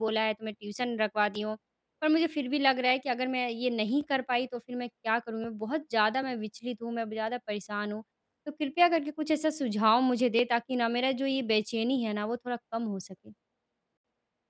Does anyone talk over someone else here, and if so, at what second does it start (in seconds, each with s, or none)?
none